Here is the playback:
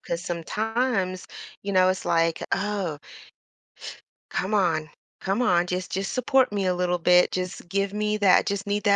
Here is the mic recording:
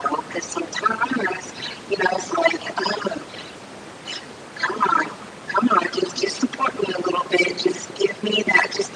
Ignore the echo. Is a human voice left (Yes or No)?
No